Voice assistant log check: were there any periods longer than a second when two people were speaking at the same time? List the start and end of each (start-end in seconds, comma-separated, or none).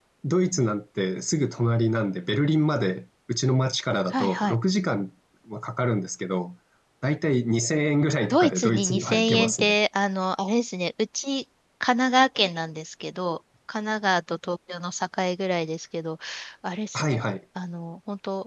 8.3-9.7